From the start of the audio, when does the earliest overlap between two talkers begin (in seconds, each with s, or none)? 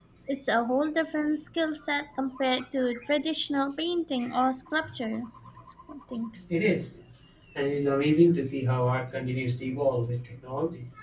none